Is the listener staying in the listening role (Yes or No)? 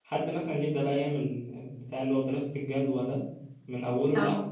Yes